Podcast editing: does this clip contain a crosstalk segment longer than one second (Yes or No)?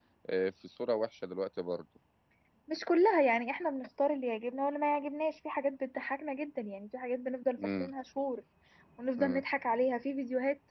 No